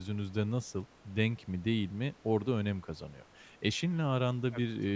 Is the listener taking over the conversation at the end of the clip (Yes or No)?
No